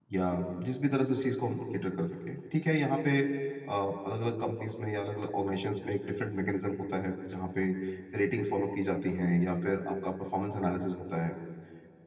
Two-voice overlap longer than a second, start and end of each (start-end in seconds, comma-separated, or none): none